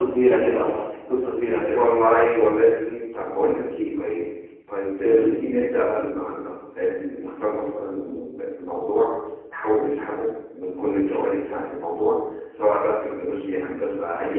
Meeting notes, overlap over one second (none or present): none